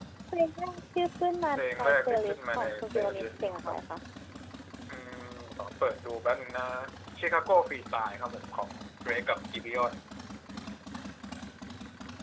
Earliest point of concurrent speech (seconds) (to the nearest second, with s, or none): 2 s